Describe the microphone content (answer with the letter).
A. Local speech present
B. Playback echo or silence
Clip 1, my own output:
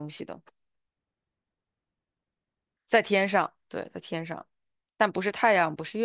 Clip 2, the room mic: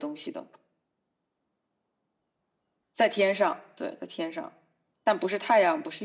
B